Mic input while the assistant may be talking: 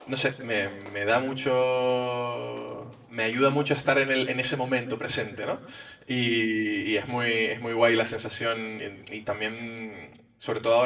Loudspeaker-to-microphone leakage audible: No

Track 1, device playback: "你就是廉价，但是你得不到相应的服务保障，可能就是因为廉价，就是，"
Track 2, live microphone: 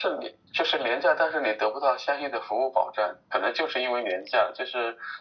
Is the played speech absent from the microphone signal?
No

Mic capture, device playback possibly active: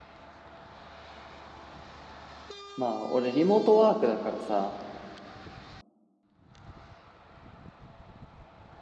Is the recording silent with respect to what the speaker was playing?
Yes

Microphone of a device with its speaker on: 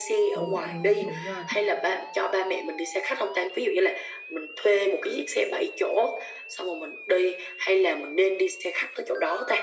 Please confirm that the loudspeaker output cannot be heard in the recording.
No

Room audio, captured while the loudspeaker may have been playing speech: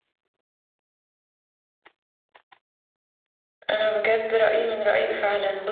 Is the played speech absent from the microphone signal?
Yes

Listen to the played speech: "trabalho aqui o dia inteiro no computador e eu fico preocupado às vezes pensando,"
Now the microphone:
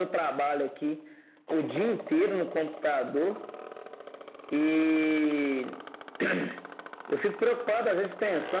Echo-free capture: No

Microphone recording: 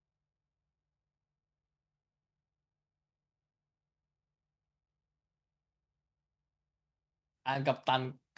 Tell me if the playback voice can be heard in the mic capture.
No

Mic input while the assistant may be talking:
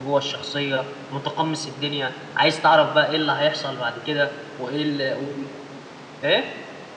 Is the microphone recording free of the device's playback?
Yes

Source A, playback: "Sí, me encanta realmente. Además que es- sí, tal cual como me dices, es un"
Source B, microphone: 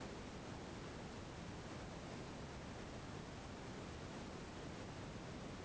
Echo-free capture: Yes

